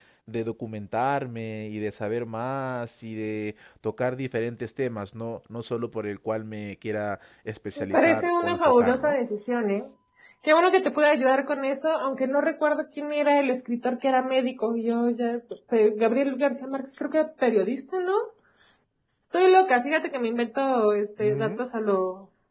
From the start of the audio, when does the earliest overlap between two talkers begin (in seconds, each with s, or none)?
7.8 s